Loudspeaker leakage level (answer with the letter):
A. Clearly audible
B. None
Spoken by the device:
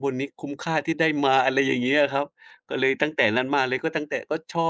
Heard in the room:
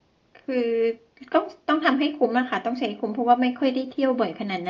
B